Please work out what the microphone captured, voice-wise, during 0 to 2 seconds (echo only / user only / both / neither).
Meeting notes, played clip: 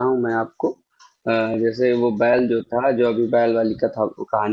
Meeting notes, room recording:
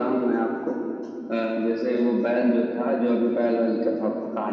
echo only